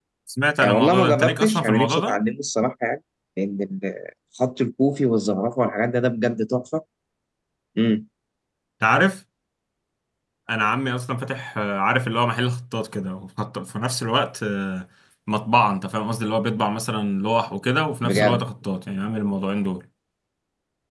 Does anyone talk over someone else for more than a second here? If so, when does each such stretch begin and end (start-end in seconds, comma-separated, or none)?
0.6-2.2